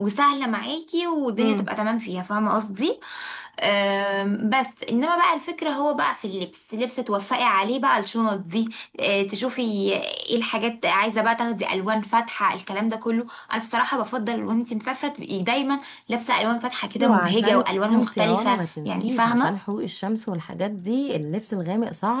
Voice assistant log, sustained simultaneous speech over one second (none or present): present